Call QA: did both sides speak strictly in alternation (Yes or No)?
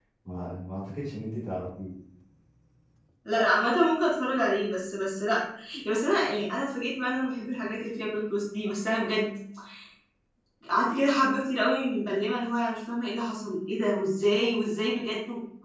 Yes